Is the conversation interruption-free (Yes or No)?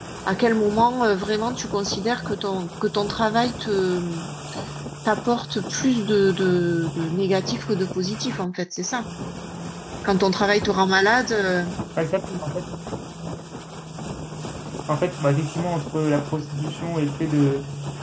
Yes